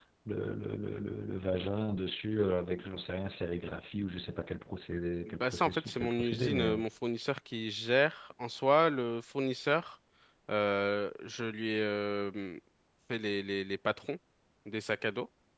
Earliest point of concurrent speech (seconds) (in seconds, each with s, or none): 5.3 s